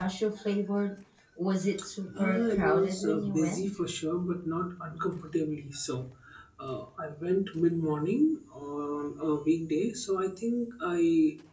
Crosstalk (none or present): present